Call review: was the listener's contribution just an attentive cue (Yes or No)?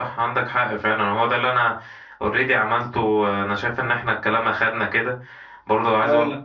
Yes